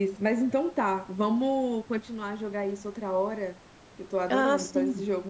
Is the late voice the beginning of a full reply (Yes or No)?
Yes